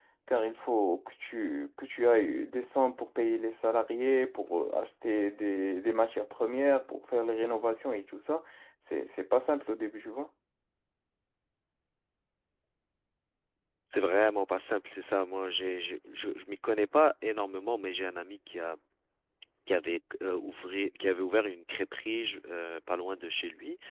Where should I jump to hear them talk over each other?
none

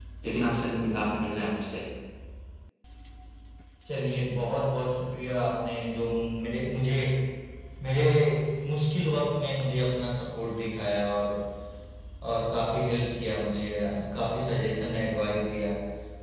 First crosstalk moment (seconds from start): none

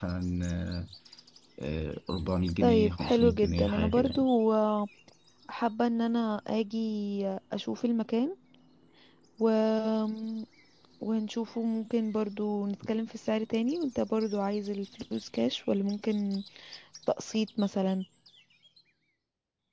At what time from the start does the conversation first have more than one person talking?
2.6 s

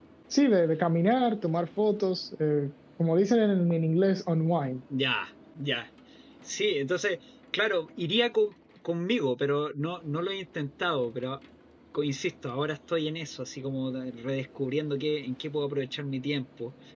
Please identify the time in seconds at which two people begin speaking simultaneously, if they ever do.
none

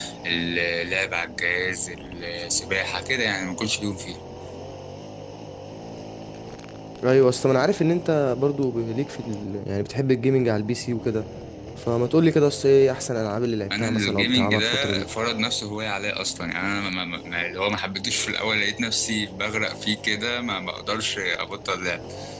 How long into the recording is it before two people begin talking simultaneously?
13.7 s

